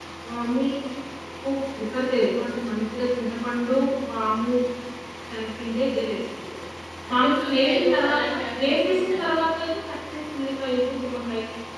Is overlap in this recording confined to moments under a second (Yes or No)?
No